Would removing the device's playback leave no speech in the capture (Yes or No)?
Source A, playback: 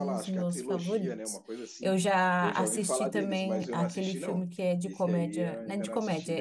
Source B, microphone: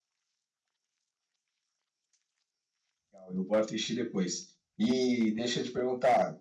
No